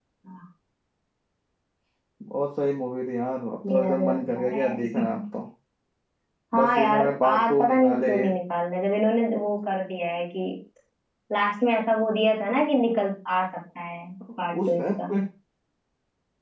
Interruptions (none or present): present